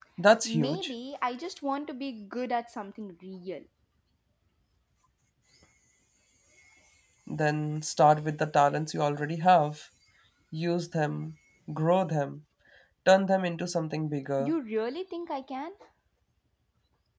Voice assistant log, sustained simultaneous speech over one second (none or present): none